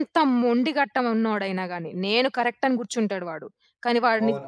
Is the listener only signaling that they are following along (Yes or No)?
No